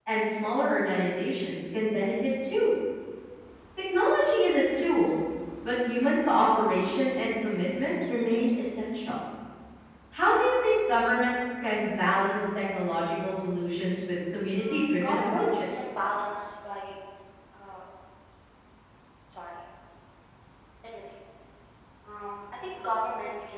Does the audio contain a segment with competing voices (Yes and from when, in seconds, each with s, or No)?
Yes, from 14.6 s